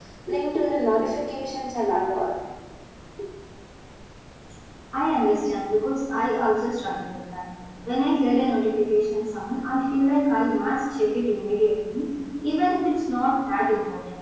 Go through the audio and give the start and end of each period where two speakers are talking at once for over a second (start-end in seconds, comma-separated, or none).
none